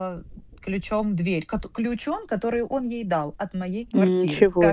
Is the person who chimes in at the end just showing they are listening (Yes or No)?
No